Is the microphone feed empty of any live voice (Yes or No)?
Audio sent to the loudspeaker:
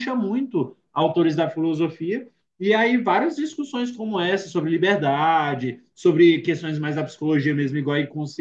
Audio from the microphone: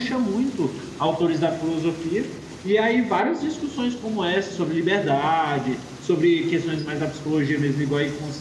Yes